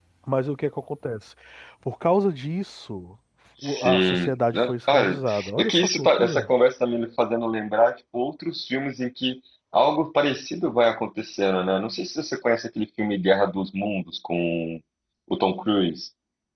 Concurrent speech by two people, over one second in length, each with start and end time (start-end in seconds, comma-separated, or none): 3.6-6.5